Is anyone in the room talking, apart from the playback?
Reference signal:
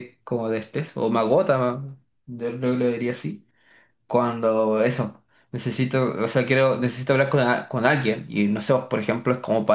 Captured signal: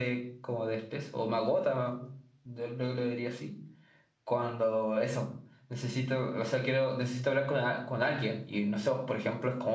No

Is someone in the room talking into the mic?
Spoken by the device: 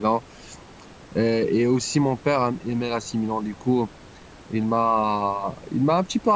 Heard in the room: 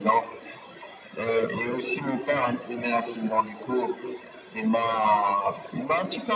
No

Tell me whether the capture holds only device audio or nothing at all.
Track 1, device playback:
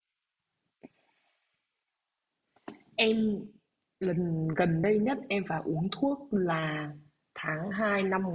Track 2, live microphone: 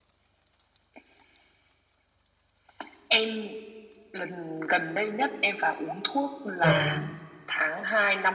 No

